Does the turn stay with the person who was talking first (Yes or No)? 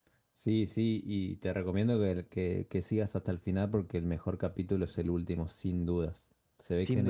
Yes